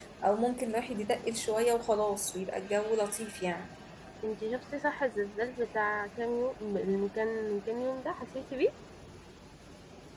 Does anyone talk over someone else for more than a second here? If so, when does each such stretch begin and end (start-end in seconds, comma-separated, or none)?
none